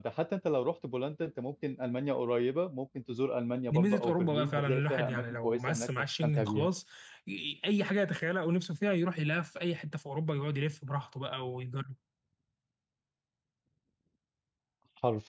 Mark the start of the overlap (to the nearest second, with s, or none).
4 s